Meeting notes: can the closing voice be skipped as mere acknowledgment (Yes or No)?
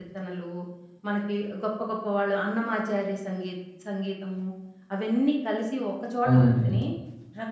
Yes